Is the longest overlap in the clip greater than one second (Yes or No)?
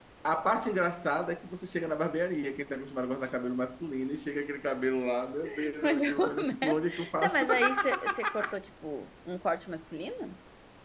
Yes